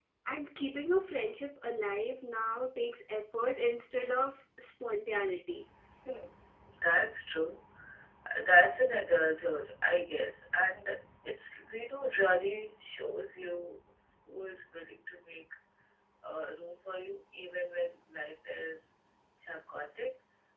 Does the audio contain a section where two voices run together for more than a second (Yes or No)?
No